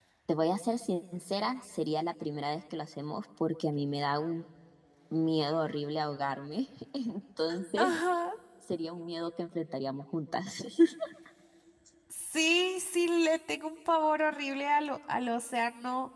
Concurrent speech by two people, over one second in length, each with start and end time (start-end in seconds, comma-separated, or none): none